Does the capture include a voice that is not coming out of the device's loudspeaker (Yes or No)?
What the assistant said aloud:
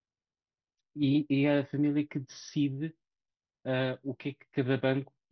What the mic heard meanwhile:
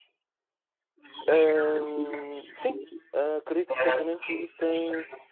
Yes